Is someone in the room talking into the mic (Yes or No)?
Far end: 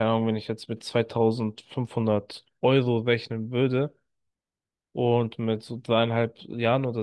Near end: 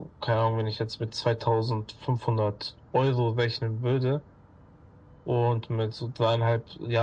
No